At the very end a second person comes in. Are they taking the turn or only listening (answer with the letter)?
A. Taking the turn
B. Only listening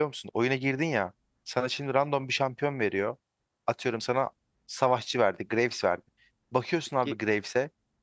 B